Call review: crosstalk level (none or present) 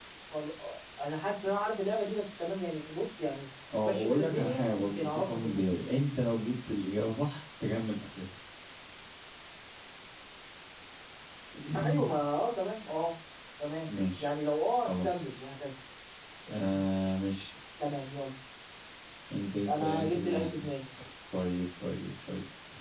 present